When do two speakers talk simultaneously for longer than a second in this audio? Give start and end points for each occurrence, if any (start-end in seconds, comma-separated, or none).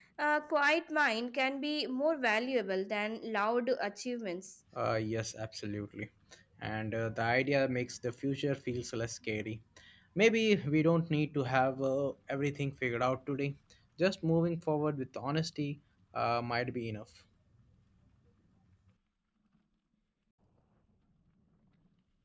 none